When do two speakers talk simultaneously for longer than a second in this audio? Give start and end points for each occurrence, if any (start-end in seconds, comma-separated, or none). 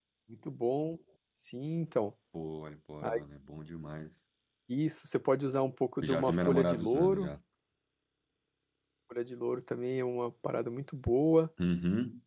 6.0-7.3